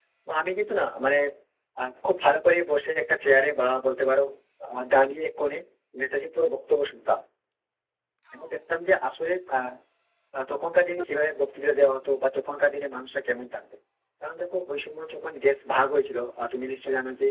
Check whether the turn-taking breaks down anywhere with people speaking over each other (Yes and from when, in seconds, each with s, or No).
No